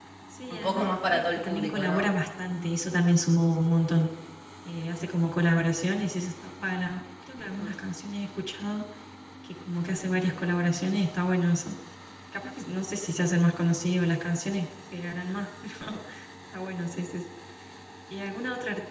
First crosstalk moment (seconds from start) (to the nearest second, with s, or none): 1 s